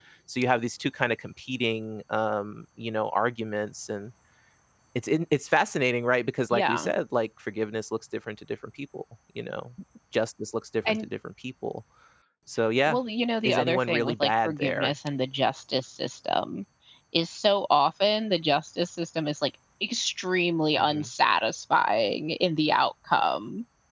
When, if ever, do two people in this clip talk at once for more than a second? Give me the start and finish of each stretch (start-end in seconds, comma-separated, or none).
13.4-14.9